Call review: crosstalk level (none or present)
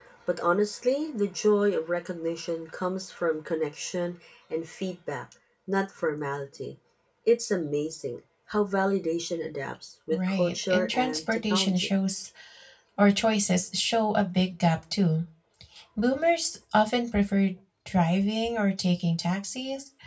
present